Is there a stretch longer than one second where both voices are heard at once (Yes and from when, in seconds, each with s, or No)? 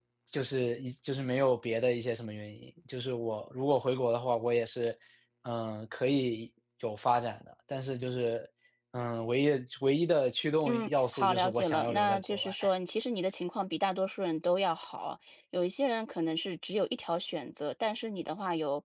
Yes, from 10.6 s